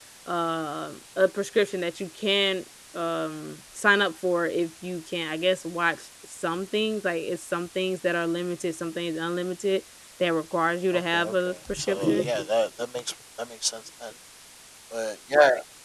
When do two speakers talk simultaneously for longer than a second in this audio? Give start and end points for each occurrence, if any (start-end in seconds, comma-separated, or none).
10.9-12.2